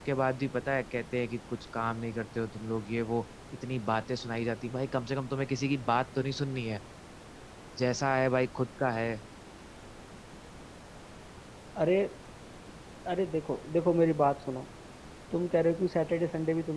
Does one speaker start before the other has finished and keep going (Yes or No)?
No